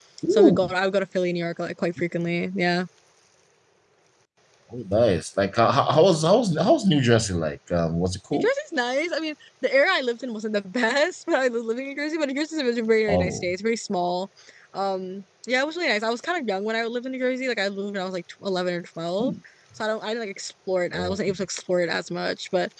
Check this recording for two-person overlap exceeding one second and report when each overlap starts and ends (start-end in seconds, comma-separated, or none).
none